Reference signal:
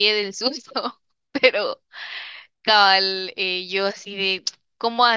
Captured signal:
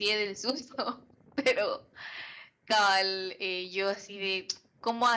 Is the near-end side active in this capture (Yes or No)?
No